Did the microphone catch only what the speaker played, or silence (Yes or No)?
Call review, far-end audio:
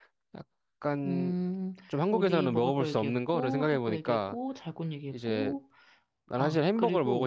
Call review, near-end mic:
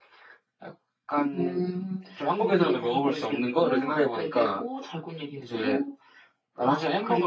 Yes